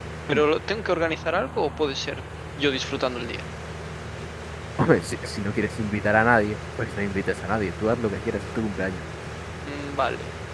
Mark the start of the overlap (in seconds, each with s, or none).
none